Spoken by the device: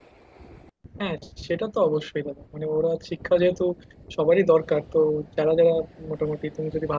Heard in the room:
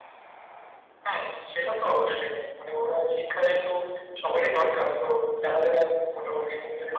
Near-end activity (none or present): none